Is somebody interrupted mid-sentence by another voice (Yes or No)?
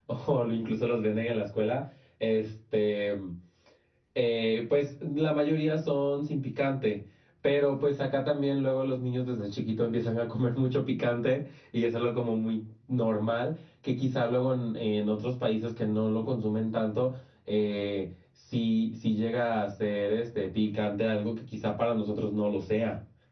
No